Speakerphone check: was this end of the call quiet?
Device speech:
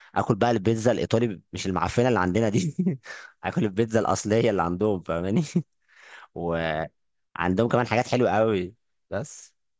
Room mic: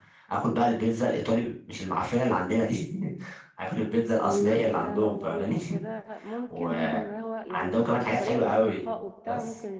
No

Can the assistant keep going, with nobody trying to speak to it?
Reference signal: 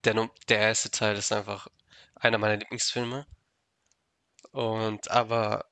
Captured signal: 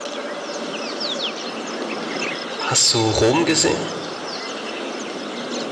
No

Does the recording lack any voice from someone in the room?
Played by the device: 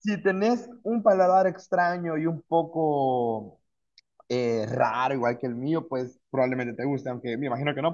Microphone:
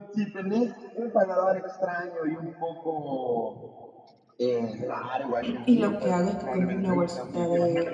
No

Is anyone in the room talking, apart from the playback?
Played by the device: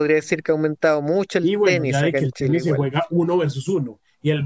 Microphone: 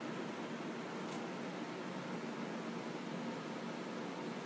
No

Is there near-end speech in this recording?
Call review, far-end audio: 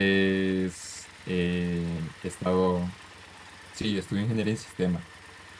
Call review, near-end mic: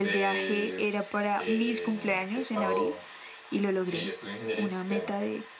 Yes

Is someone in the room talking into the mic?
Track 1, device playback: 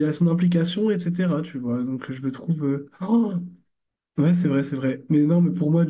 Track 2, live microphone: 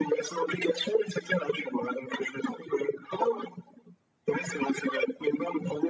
No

